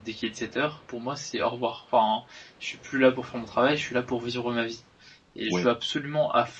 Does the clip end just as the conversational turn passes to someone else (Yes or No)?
No